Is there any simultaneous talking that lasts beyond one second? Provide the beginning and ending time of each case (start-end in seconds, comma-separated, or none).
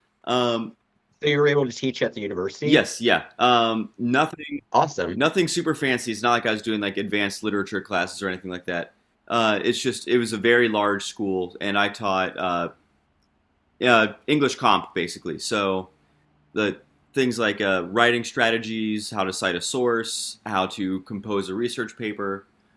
none